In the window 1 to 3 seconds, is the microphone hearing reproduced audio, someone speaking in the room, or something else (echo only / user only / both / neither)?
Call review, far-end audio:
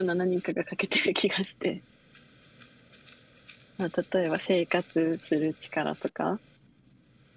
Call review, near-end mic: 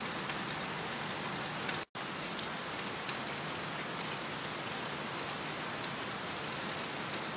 neither